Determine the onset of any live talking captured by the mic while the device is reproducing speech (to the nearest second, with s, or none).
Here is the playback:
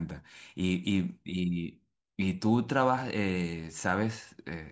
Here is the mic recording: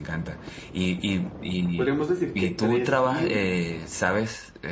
2 s